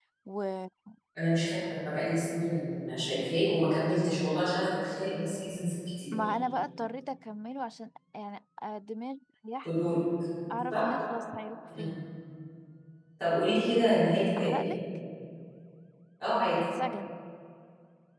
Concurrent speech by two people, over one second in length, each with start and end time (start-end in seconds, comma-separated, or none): none